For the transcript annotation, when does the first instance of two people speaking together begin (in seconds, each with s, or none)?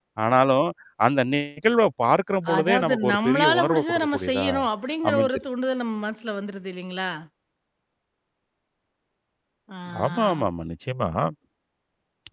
2.6 s